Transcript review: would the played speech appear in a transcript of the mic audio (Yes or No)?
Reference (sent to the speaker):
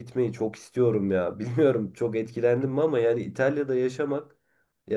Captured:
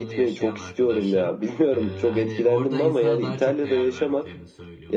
Yes